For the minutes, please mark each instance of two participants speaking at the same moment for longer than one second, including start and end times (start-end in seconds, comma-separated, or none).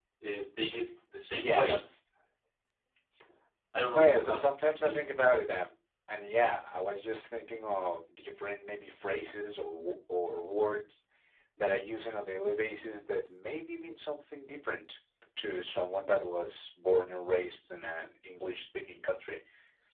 3.9-5.2